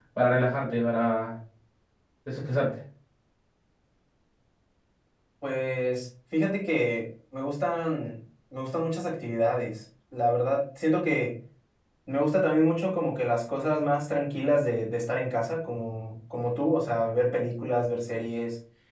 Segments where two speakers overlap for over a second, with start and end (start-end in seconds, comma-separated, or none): none